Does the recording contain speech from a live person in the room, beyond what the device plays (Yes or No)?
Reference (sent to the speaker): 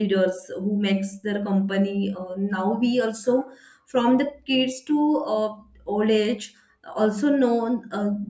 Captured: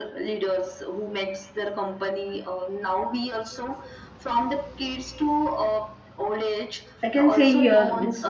Yes